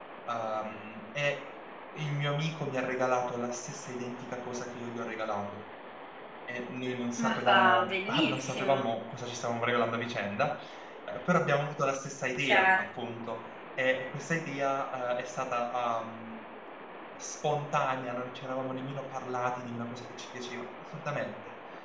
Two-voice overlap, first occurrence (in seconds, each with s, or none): 7.2 s